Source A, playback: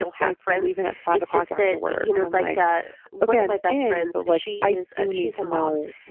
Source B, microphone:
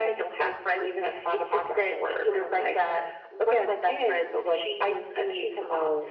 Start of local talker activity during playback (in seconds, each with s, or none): none